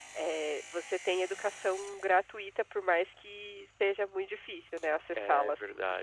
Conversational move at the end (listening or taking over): taking over